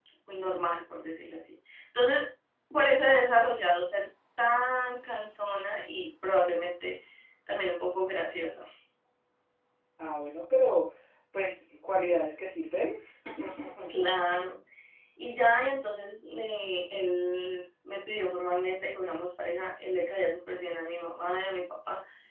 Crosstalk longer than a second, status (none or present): none